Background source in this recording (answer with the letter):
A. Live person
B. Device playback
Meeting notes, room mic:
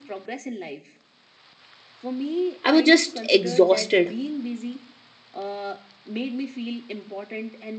B